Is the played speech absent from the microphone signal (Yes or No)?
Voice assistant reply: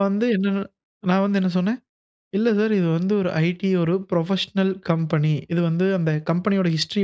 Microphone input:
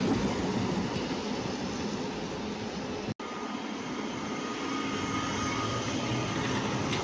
Yes